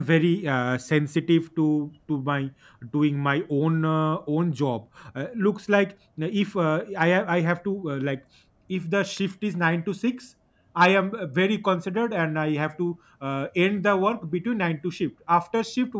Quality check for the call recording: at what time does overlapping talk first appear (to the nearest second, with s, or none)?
none